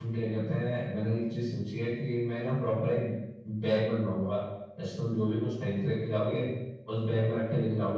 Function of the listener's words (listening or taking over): listening